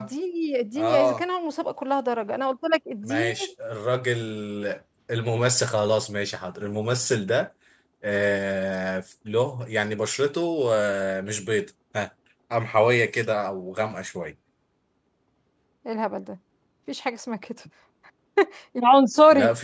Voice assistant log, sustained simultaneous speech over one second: none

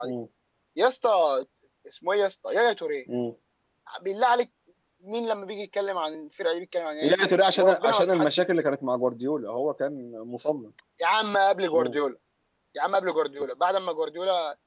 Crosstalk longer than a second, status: present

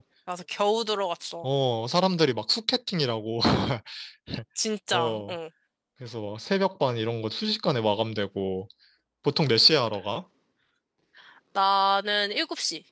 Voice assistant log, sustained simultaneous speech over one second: none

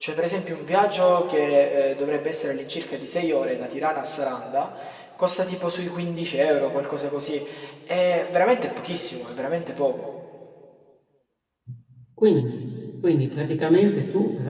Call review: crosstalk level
none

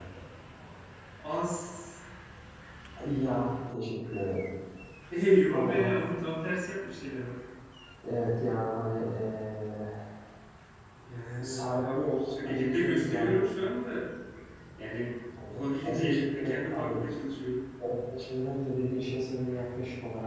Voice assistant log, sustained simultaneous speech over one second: present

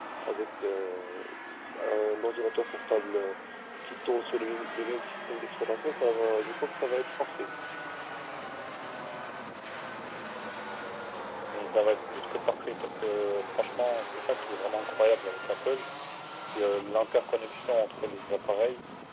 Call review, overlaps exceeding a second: none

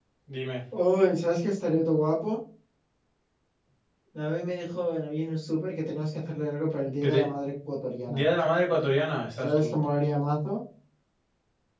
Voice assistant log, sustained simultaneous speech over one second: none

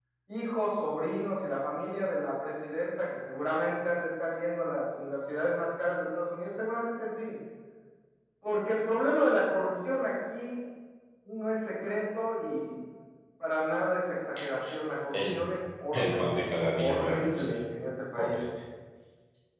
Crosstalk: present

